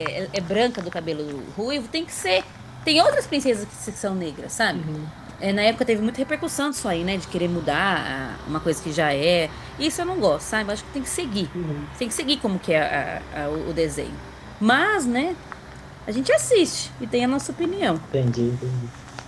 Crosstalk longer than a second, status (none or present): none